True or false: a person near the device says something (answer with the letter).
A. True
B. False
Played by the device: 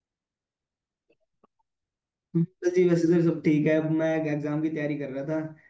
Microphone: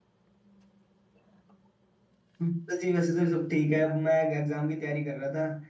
B